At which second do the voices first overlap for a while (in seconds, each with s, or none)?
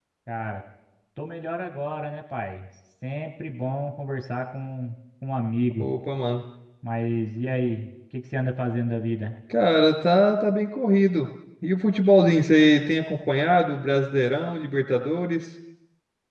none